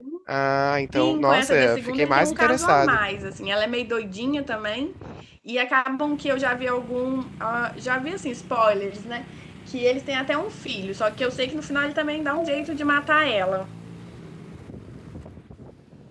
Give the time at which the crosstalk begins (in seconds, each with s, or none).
0.9 s